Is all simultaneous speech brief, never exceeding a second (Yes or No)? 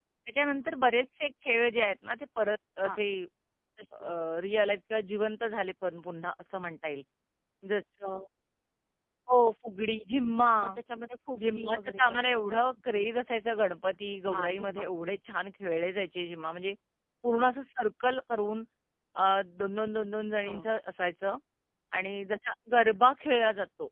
No